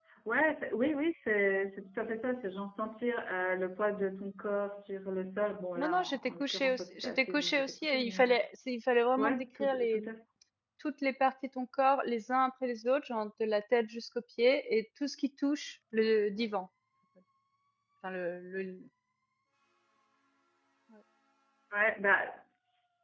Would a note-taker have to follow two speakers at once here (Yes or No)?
Yes